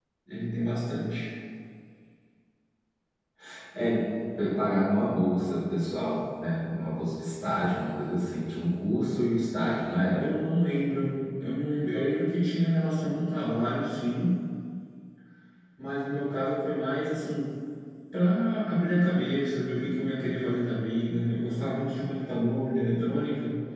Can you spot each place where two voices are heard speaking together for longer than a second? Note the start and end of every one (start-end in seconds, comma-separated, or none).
none